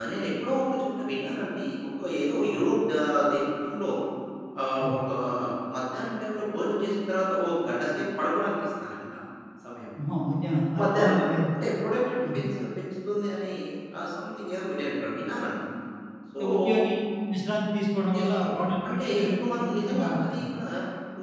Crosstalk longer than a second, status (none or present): present